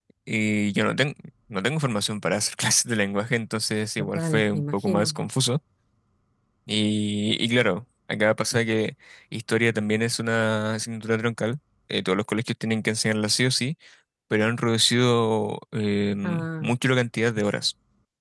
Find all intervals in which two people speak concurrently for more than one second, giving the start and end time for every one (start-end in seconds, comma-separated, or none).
4.0-5.2